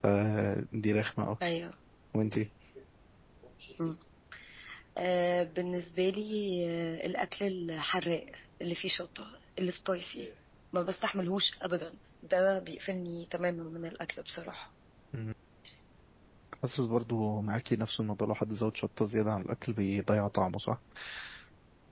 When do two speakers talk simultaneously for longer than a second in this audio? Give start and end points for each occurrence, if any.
none

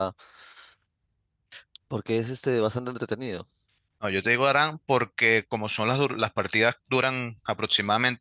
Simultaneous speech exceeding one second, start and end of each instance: none

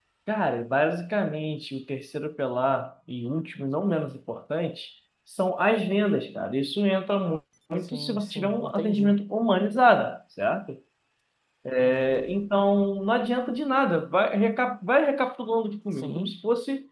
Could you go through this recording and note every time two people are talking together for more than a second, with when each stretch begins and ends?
7.8-9.1

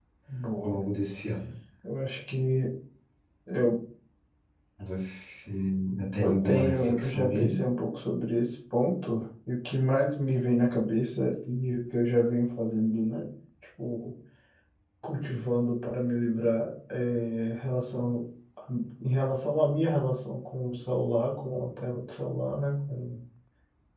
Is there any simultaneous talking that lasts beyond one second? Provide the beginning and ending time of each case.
6.2-7.6

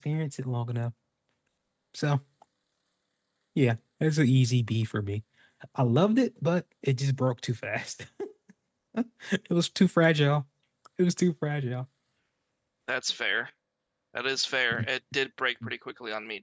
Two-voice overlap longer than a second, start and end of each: none

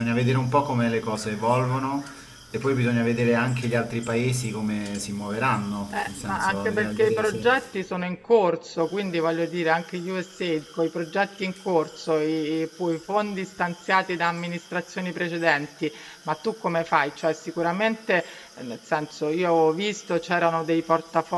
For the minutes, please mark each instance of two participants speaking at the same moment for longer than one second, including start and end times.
5.9-7.5

